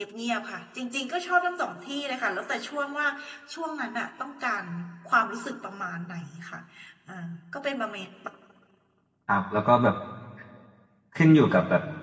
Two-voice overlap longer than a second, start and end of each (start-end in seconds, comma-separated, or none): none